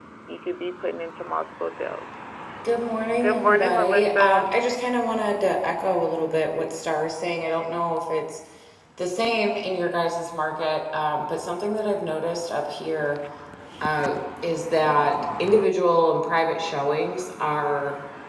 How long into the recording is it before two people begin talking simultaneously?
3.2 s

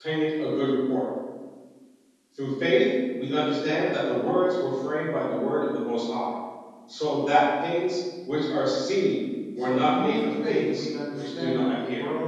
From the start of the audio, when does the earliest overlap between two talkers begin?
9.6 s

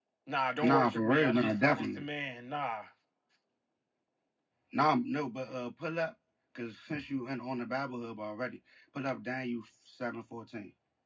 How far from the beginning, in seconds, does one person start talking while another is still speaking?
0.6 s

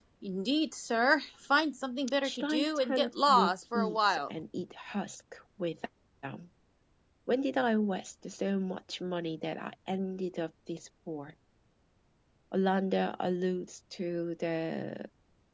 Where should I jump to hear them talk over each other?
2.2 s

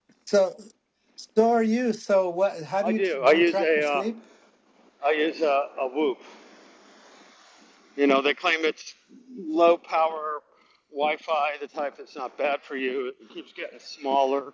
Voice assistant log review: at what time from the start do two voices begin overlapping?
2.8 s

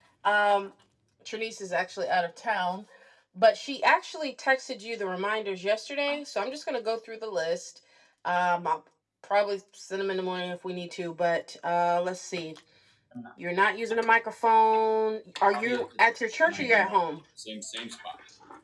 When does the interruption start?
15.5 s

